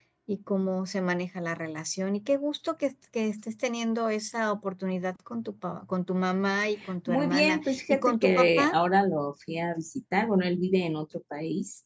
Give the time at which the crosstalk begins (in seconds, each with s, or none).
6.8 s